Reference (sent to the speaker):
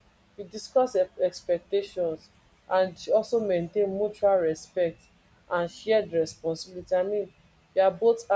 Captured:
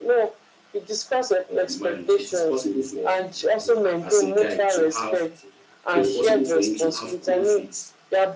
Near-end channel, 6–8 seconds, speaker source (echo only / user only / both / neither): both